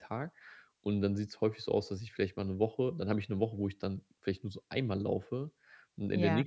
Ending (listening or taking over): listening